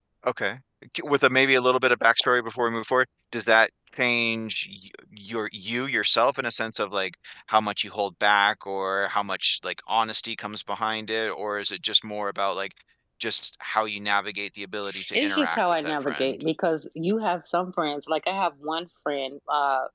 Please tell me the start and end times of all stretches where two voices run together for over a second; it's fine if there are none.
15.1-16.4

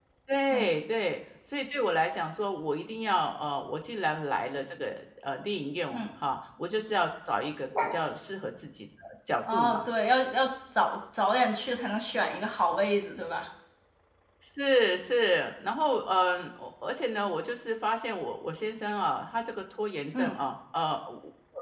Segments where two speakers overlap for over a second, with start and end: none

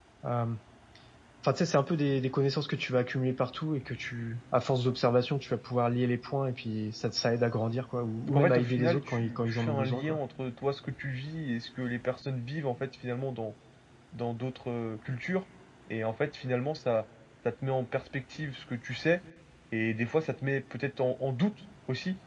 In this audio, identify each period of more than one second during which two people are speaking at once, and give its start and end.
8.3-10.2

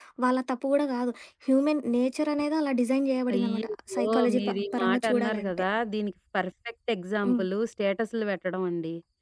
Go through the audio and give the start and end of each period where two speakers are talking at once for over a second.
3.3-5.5

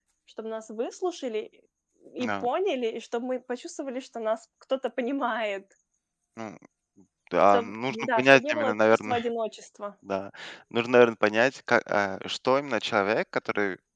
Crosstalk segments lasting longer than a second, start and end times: 7.5-9.2

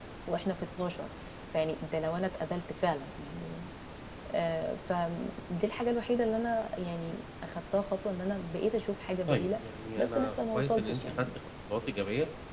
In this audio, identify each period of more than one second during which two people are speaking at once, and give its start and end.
10.0-11.2

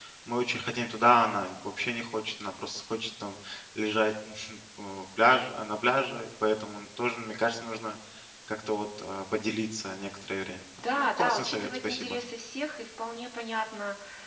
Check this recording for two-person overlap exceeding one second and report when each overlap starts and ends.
10.9-12.2

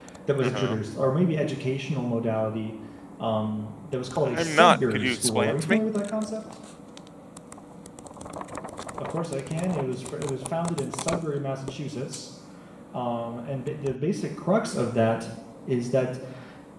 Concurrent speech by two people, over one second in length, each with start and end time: 4.3-5.8

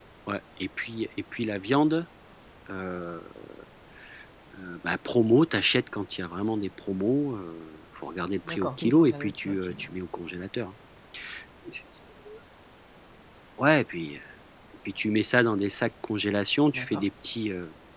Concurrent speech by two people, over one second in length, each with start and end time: 8.5-9.9

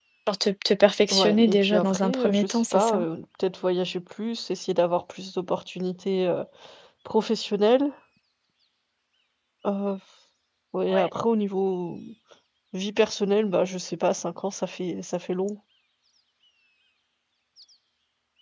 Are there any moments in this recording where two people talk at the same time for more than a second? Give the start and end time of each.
1.1-3.0

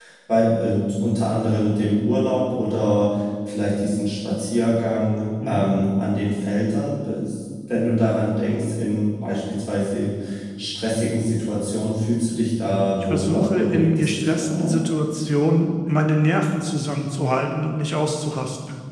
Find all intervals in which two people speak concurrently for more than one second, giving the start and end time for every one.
12.9-14.8

